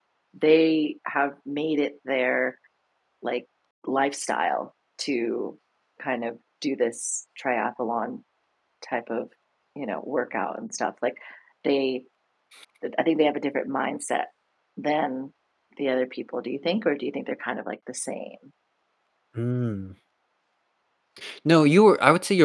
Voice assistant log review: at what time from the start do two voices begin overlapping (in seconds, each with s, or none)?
none